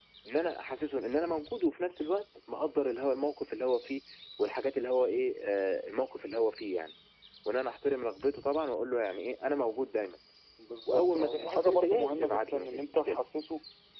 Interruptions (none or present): present